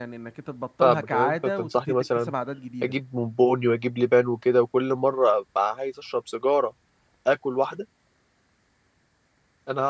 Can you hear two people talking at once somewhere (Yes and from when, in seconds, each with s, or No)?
Yes, from 0.8 s